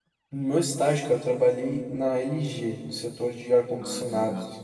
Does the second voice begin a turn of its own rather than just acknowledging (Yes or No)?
Yes